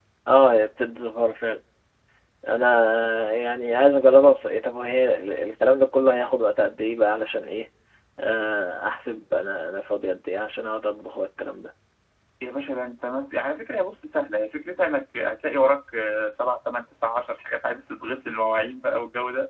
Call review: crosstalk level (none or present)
none